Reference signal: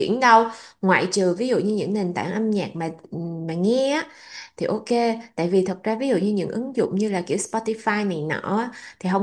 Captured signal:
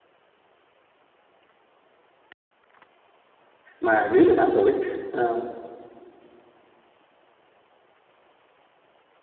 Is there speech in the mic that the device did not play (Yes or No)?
Yes